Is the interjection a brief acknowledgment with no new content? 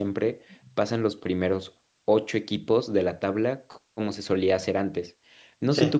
Yes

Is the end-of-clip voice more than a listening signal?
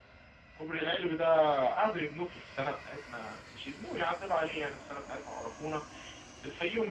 No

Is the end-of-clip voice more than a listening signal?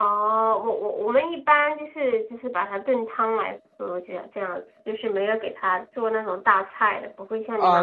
Yes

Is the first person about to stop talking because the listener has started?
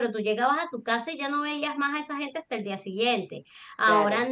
No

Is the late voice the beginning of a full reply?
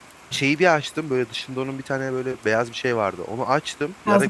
No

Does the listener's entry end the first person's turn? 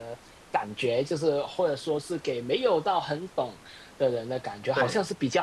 No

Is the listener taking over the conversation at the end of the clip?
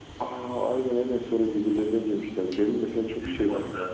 No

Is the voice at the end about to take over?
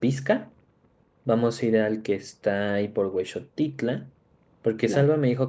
No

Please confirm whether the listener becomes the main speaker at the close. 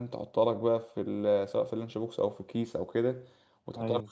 No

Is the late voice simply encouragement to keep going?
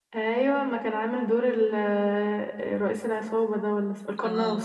No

